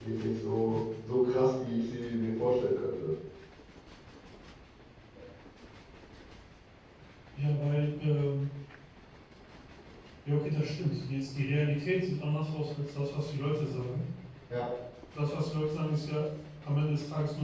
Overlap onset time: none

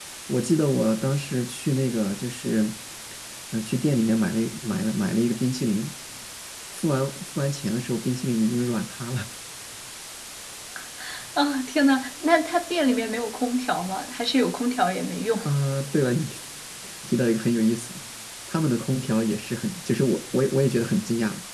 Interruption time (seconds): none

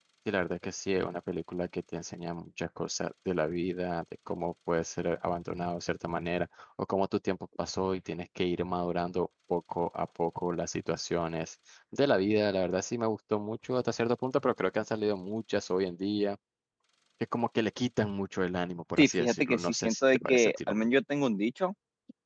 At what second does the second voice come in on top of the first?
19 s

